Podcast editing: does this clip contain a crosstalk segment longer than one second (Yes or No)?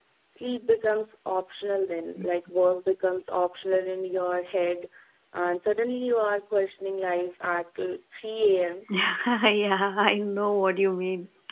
No